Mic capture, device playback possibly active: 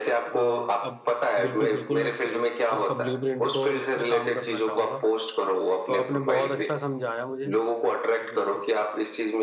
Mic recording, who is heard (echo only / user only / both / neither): both